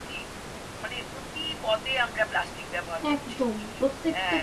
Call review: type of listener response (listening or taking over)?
taking over